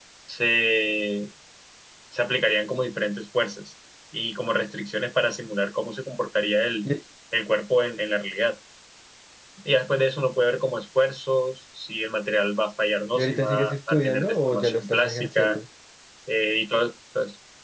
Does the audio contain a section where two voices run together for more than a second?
Yes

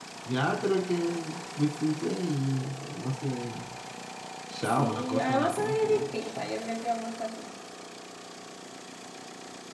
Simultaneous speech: Yes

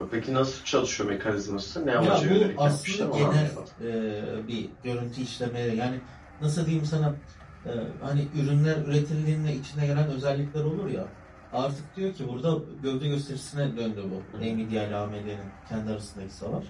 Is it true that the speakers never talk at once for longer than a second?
No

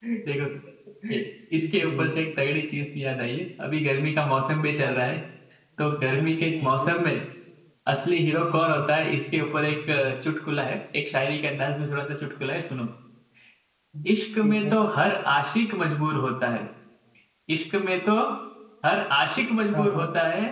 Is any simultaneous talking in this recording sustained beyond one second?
No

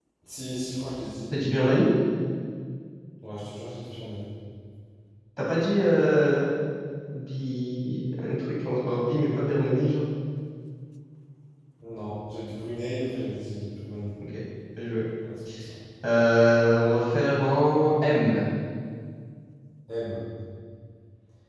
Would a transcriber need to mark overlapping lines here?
No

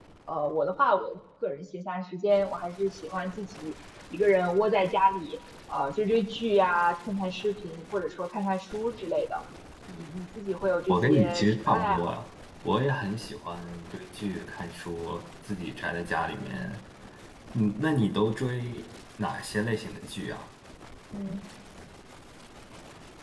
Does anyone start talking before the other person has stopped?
Yes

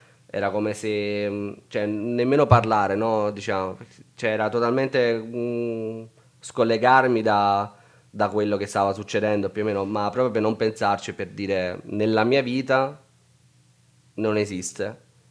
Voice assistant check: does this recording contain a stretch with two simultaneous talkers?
No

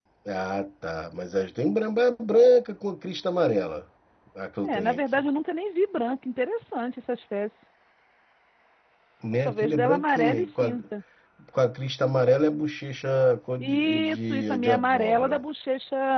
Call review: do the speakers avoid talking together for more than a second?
No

